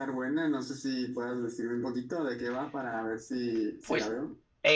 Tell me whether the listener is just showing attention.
No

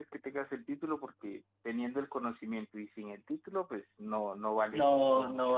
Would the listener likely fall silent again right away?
No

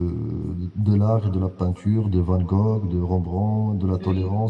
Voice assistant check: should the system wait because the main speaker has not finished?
Yes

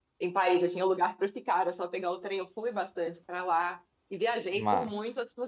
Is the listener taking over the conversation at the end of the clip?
No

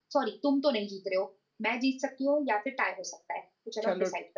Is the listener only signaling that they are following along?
No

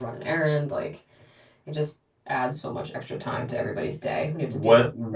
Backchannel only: No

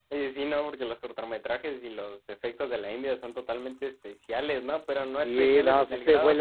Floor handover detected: Yes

